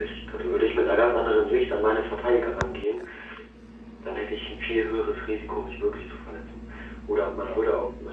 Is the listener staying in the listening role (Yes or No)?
Yes